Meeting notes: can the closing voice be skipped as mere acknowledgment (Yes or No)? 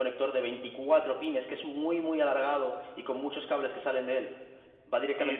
No